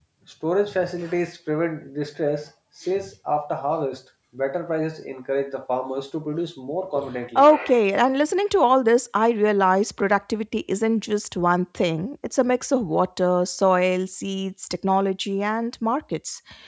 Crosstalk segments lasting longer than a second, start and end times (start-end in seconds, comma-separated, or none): none